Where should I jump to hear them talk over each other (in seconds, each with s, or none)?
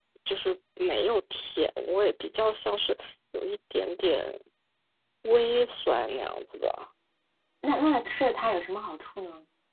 none